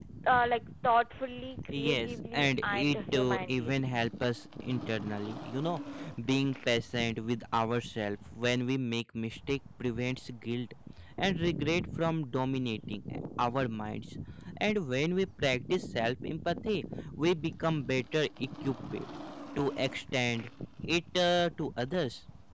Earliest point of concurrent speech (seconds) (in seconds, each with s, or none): 1.5 s